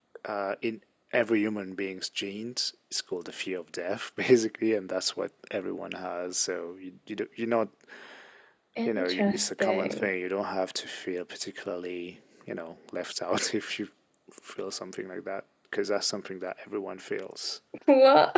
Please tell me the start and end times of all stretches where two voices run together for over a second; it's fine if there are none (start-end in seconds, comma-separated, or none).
8.8-10.1